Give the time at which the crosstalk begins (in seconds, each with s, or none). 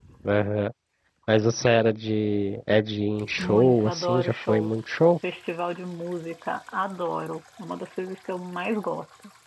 3.4 s